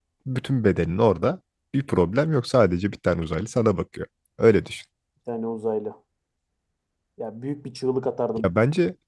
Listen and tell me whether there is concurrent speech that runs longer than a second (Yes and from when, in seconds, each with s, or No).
No